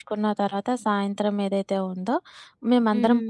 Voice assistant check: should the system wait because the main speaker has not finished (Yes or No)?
Yes